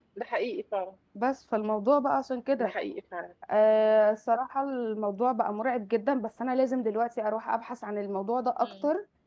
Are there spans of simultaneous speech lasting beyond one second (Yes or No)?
No